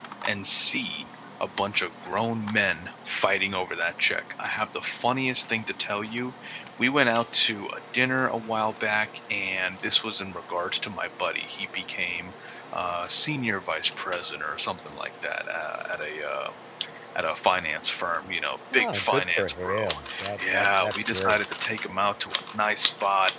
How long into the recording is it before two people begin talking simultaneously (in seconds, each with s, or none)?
18.7 s